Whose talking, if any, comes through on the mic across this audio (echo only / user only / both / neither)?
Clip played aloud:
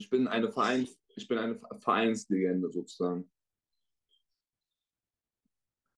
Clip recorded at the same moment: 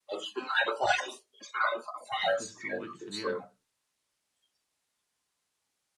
both